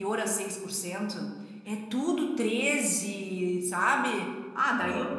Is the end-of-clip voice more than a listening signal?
No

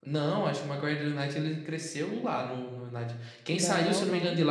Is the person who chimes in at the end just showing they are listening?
Yes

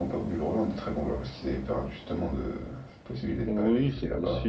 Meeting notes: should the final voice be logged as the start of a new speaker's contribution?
Yes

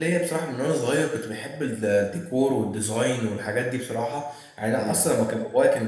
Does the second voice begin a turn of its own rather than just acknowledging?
No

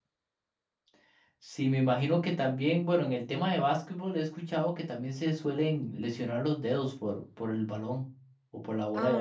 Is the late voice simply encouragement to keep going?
No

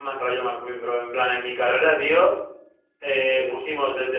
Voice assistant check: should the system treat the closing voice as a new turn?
No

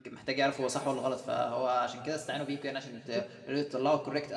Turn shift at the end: No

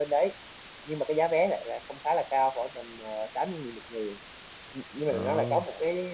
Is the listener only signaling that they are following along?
Yes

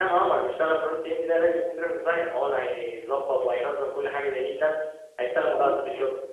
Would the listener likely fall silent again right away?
Yes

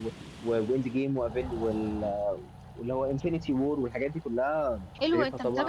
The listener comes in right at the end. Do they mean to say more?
Yes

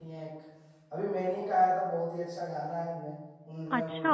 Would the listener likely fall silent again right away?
No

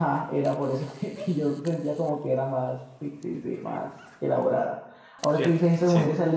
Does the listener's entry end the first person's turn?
No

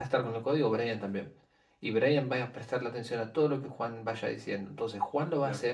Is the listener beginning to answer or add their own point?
No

